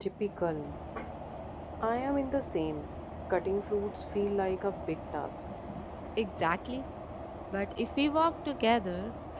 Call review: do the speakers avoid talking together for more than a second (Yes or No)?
Yes